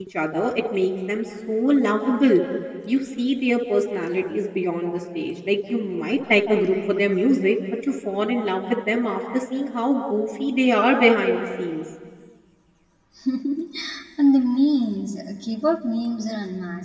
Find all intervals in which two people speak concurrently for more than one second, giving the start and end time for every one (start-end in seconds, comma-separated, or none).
none